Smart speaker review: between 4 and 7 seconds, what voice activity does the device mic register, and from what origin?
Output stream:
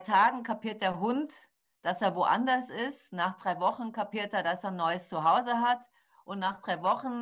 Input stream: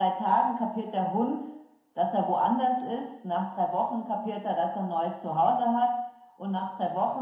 echo only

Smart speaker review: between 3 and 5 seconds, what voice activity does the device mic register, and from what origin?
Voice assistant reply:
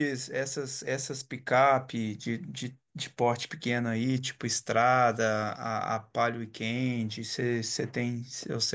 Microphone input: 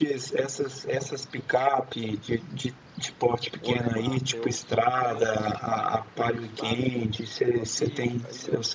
both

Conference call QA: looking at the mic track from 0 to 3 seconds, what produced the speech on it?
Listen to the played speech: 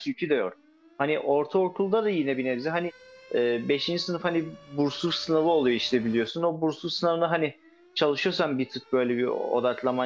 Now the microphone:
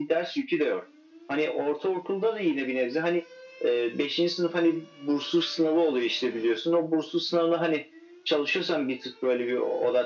echo only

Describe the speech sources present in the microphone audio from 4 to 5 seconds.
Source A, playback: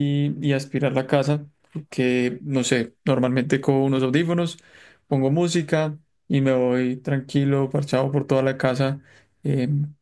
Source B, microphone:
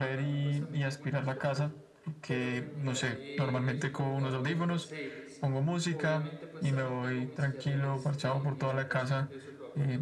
both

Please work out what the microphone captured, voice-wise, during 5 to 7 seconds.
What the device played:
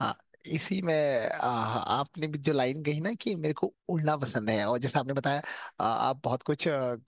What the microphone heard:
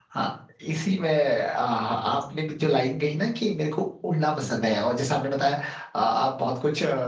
echo only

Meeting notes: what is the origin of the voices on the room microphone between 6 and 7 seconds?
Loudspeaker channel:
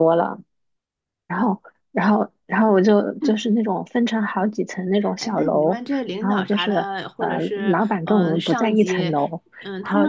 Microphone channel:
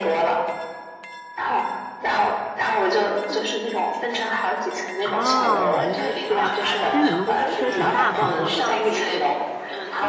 both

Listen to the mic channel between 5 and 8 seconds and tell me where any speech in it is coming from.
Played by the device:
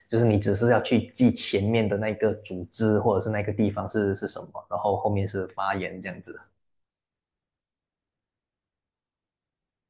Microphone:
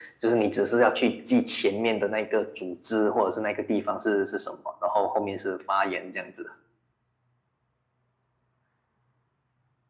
echo only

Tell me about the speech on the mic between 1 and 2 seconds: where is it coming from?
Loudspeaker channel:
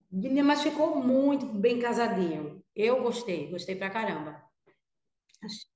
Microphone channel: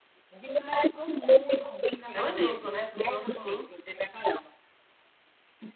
echo only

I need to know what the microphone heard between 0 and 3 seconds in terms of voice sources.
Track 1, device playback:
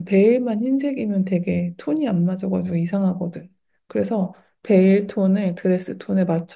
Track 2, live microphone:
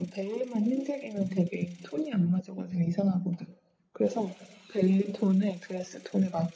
echo only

